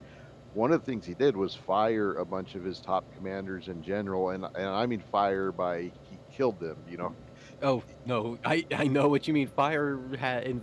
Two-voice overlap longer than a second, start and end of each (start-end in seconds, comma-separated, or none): none